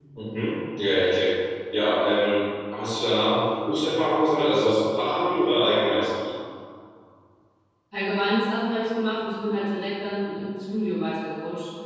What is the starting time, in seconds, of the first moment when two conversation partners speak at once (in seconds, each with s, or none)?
none